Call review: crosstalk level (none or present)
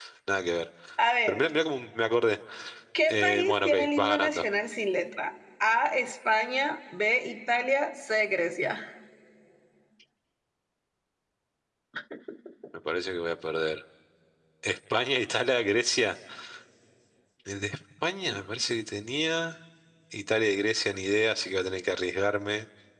present